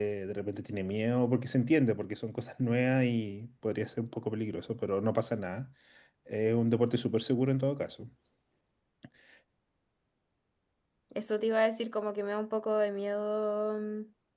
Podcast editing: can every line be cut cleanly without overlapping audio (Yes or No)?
Yes